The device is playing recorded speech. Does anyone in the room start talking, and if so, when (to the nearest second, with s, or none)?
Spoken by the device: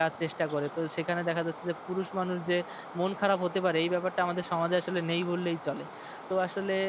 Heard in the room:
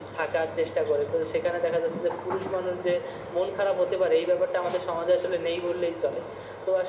none